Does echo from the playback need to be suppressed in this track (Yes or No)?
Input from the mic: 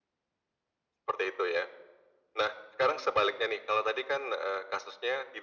Yes